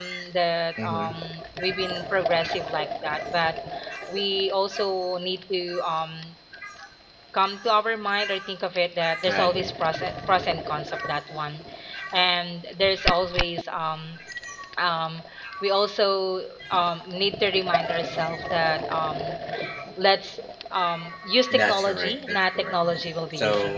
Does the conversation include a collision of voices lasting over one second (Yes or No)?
Yes